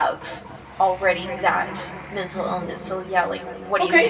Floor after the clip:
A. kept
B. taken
B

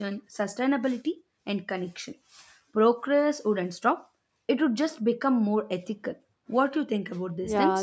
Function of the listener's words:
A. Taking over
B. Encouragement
A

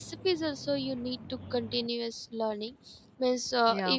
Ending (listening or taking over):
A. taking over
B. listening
B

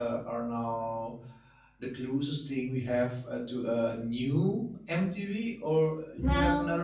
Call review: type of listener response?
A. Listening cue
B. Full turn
B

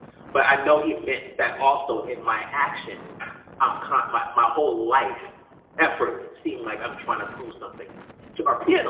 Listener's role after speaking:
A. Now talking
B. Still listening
A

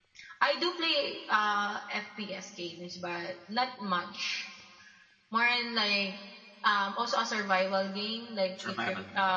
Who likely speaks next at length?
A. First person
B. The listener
A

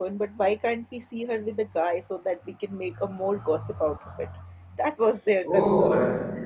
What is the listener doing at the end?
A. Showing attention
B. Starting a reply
B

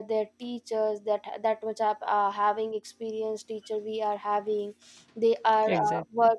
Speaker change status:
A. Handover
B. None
B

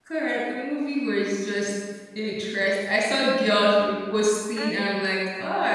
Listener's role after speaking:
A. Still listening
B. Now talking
A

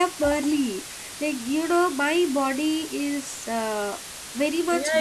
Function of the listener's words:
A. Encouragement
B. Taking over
B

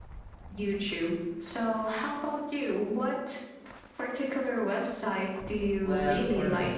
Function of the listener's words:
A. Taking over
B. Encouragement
A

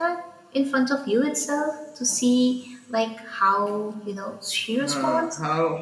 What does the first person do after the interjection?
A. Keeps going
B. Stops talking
B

